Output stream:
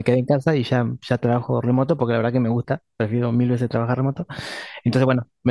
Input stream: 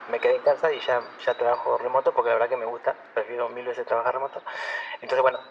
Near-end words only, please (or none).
none